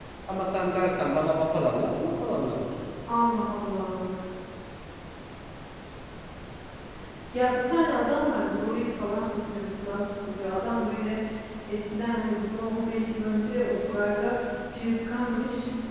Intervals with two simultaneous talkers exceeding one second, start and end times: none

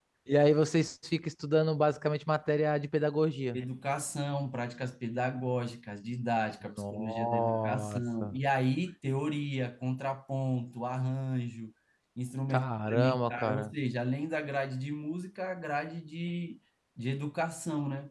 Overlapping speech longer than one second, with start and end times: 6.7-8.4, 12.5-13.7

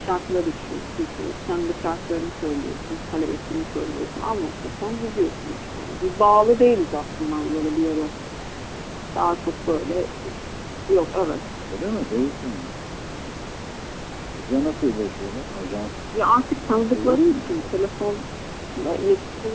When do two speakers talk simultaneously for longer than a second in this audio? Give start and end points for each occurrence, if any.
16.6-17.9

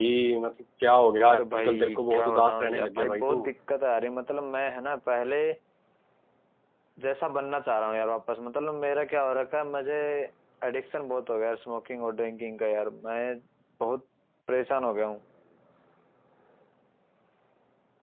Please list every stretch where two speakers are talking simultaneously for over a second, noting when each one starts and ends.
1.3-3.4

